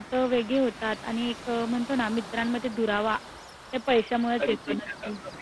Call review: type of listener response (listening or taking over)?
taking over